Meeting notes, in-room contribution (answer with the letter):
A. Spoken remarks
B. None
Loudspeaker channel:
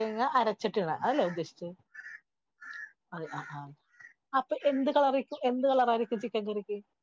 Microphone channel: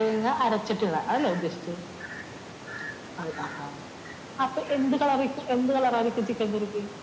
B